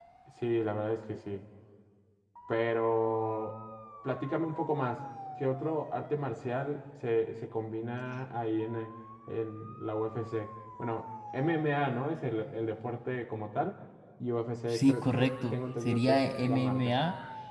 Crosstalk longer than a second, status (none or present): present